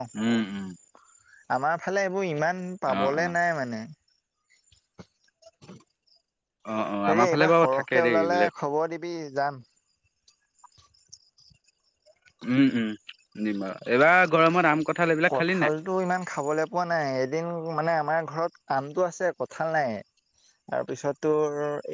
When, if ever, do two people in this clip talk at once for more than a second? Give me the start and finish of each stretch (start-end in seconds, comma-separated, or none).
7.1-8.5